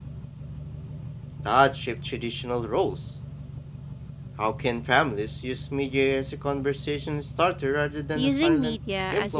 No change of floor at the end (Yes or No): No